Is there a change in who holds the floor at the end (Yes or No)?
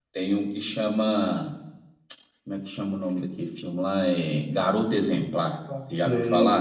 Yes